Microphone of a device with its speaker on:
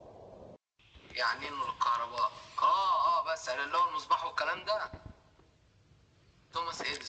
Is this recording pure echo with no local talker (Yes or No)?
Yes